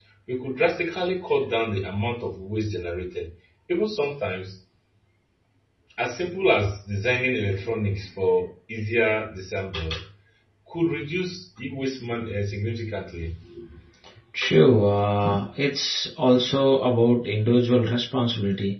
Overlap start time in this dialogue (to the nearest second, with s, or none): none